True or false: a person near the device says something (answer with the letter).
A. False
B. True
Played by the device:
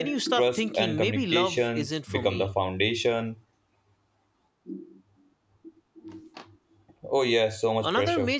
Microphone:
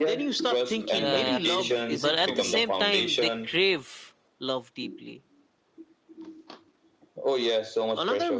B